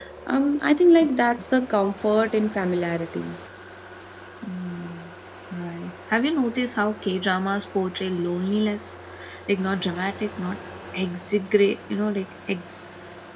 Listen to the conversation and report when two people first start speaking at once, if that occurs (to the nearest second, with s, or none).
none